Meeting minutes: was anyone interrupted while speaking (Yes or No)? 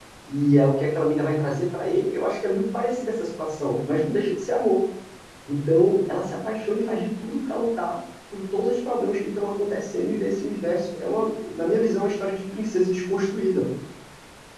No